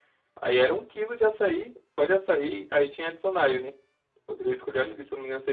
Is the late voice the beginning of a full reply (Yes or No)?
No